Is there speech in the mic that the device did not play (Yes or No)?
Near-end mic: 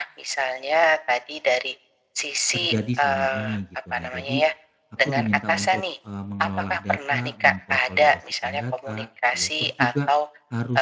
Yes